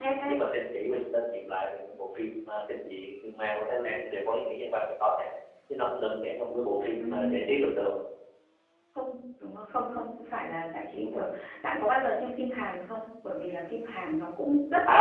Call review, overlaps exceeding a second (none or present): none